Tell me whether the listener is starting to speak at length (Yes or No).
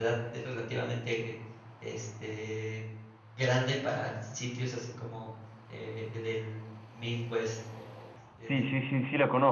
Yes